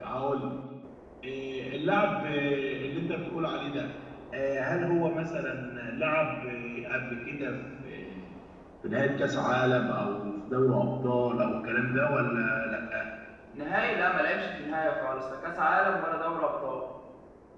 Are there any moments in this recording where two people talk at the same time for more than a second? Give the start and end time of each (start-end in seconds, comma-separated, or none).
none